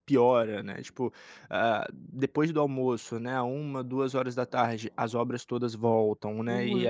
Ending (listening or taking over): listening